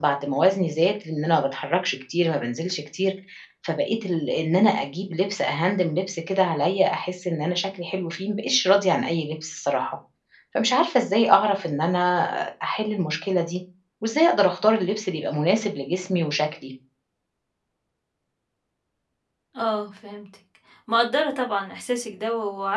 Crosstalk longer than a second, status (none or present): none